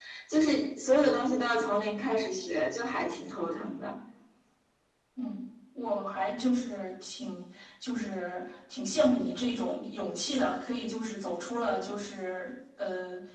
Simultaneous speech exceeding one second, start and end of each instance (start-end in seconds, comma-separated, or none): none